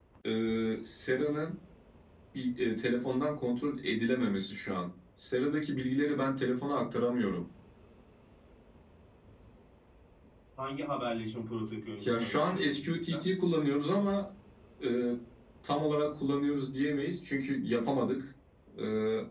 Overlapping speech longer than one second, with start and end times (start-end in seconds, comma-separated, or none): 12.0-13.3